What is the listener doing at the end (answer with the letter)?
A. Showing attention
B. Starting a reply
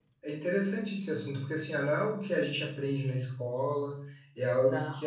A